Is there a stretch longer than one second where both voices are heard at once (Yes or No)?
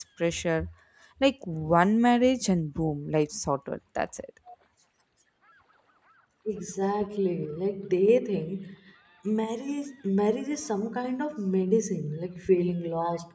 No